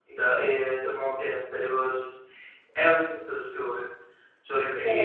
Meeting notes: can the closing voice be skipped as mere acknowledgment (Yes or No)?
Yes